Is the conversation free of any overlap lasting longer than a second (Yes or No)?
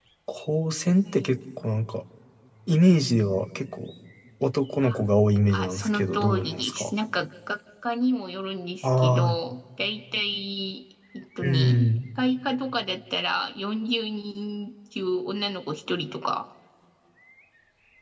No